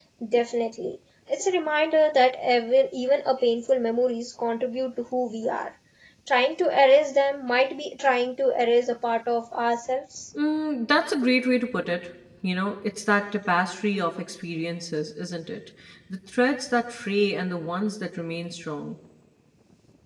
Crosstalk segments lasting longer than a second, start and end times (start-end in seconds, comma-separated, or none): none